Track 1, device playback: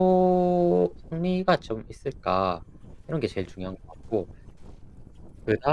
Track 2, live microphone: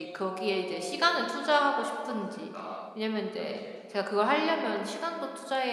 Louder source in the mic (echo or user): user